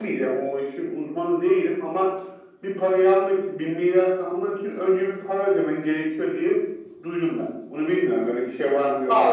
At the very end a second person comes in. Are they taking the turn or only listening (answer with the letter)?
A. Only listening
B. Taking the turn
B